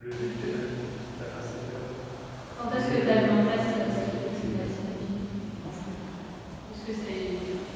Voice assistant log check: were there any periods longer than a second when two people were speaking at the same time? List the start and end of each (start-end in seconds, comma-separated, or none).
2.6-4.8